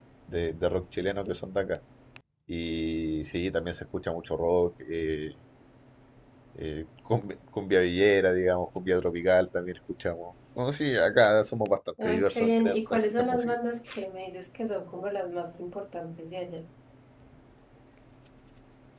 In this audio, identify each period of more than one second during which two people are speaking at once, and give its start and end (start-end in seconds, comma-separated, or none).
12.0-13.6